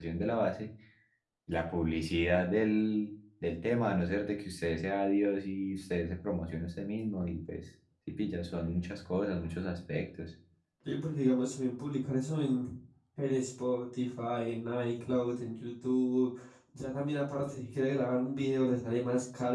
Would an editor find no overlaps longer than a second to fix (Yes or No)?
Yes